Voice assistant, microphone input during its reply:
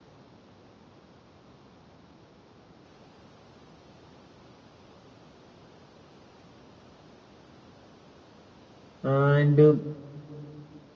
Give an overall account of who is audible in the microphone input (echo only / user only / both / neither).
user only